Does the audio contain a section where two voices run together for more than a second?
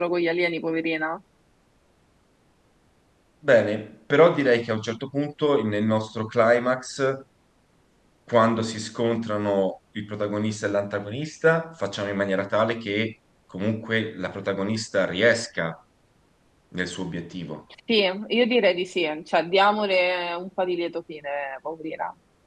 No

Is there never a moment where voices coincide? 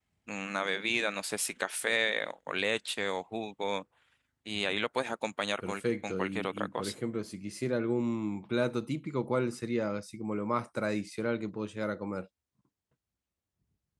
No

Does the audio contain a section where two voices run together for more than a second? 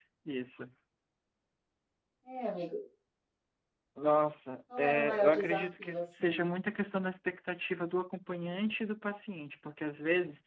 Yes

